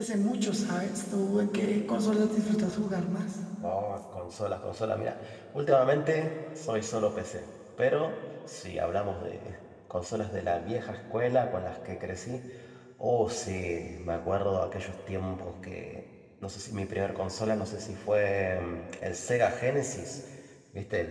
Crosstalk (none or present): none